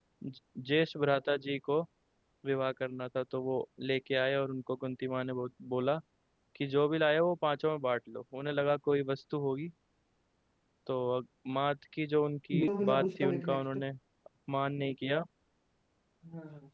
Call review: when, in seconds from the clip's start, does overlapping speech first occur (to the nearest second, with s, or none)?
13 s